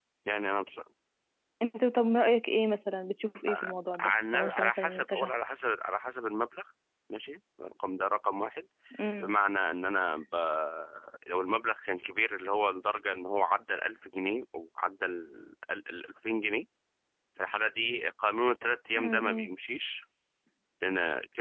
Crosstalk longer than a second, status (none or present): present